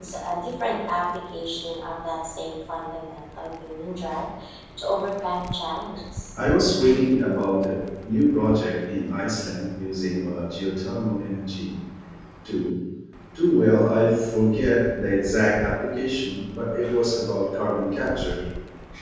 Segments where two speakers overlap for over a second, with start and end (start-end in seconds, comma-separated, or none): none